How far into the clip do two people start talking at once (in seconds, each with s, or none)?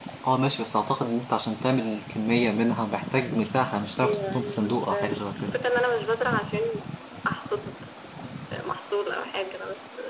4.0 s